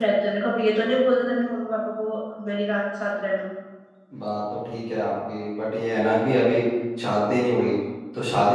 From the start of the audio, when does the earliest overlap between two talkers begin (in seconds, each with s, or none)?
none